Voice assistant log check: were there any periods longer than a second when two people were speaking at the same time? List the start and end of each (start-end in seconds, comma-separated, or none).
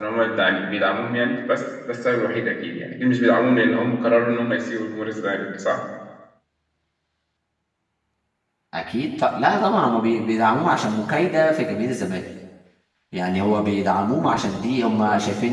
none